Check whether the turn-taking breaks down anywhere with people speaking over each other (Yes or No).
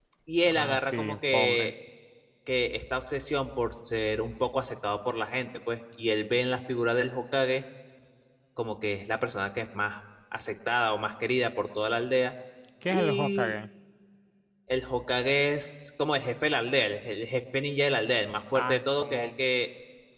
Yes